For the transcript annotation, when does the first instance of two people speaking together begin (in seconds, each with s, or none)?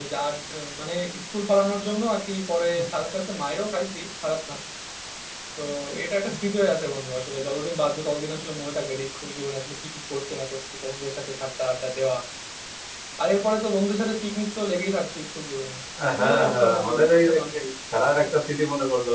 16.2 s